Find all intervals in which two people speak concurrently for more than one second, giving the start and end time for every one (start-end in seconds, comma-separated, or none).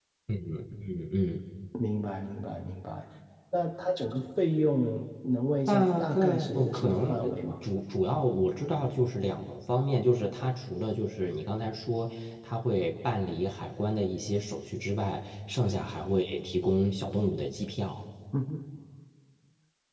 5.7-7.6